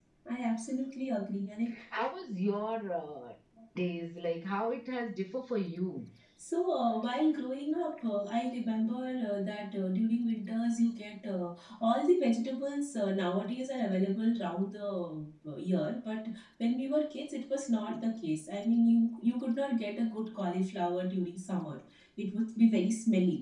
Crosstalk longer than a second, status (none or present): none